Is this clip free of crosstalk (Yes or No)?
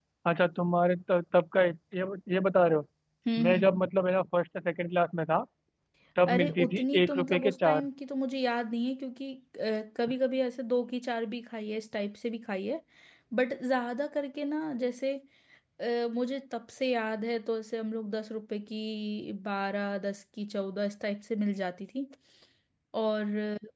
No